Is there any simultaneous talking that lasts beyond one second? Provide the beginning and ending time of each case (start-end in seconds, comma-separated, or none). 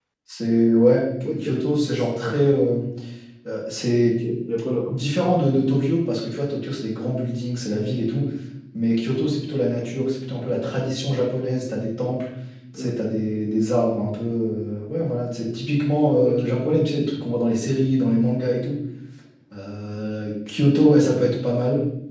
none